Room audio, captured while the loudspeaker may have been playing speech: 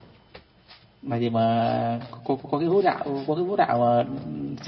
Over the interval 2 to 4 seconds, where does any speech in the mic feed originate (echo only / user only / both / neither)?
user only